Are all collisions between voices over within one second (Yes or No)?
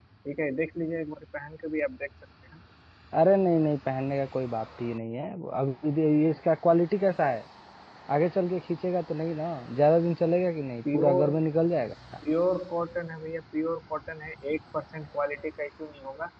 Yes